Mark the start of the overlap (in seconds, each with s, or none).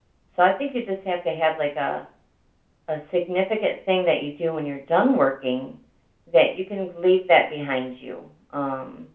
none